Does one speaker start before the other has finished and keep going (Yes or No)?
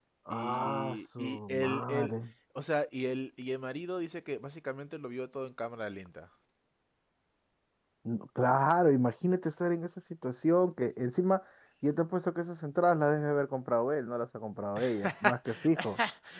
Yes